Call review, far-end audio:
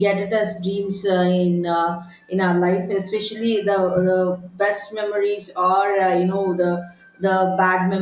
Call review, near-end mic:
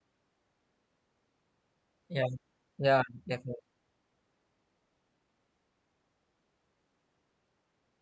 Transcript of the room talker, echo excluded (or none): yeah yeah definitely